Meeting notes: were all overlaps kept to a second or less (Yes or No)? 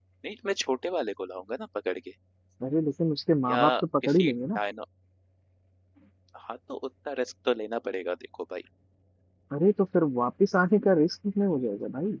Yes